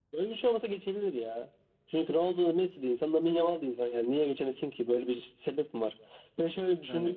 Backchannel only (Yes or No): Yes